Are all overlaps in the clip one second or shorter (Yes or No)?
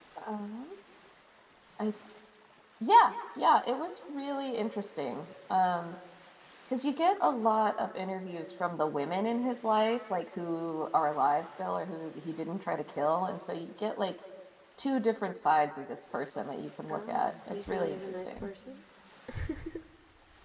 No